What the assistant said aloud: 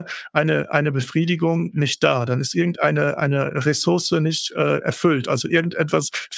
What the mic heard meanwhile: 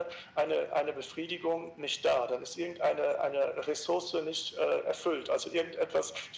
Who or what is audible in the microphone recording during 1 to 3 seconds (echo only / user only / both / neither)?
echo only